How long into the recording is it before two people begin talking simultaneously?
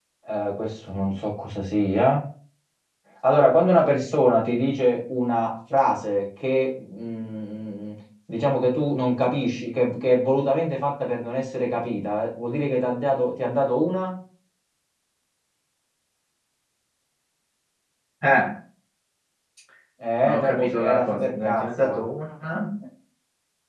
20.2 s

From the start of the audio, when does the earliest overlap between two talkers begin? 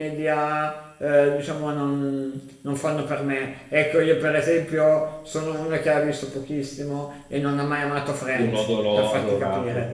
8.3 s

